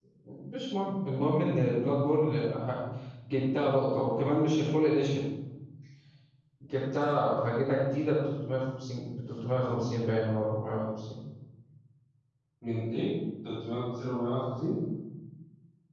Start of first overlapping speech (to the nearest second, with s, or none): none